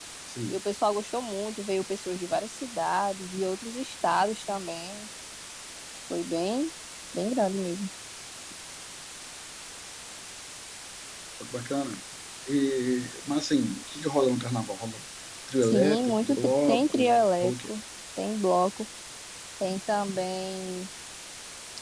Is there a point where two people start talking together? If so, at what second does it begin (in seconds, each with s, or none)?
15.6 s